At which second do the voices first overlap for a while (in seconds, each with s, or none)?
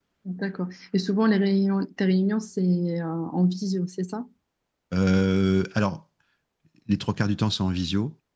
none